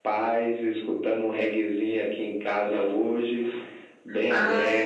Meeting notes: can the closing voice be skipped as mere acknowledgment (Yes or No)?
No